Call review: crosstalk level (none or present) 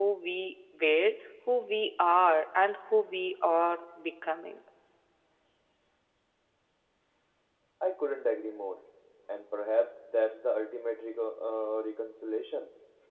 none